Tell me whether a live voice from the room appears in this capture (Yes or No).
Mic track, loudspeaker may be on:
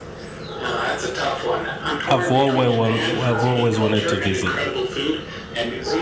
Yes